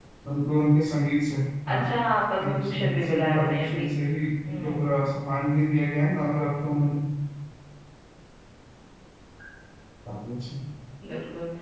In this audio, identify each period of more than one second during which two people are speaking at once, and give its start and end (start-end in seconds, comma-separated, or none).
2.4-3.9